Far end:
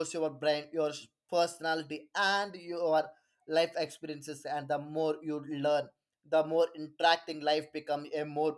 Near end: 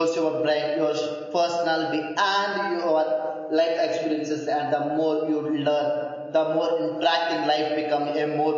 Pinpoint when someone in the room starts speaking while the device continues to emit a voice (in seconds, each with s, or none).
none